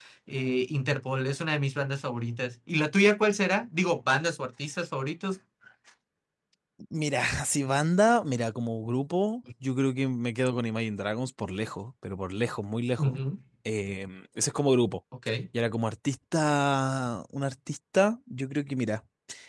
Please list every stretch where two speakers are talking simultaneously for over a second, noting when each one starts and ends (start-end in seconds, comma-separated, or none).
none